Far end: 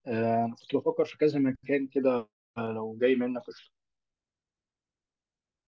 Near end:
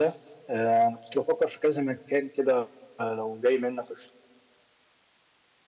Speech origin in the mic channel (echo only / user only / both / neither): echo only